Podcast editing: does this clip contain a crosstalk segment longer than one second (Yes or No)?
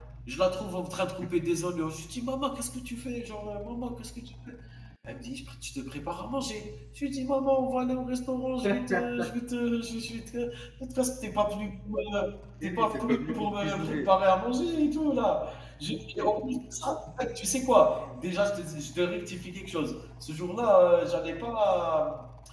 Yes